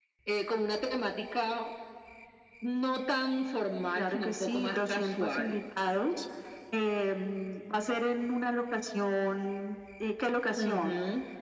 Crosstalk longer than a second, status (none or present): present